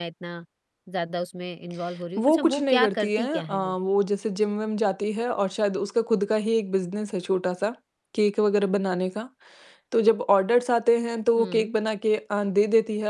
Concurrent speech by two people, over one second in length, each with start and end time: 2.2-3.7

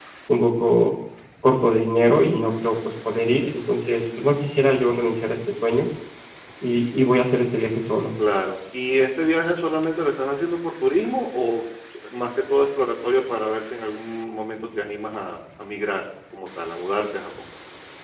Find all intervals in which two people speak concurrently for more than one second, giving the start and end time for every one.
none

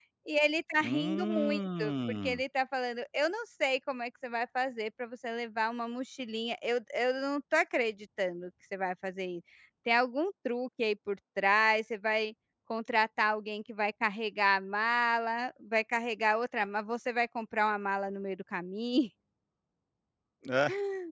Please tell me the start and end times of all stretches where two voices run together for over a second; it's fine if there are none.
0.8-2.4

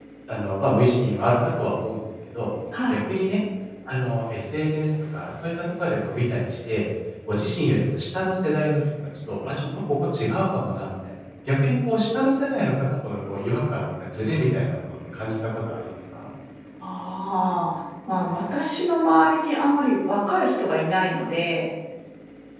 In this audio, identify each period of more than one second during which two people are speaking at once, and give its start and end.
none

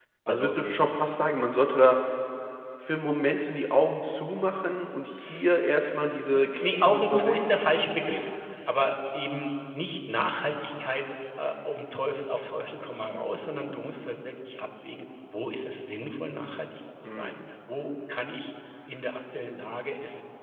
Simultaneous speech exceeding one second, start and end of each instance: 6.3-7.6

